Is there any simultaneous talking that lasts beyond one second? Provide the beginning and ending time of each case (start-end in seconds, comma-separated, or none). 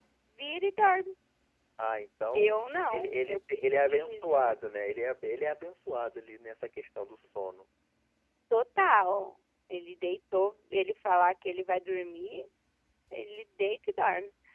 2.9-4.6